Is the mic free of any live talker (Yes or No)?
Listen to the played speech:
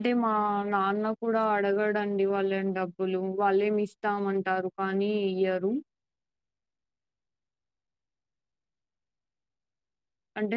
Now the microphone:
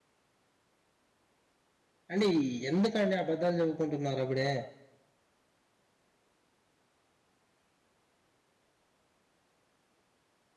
No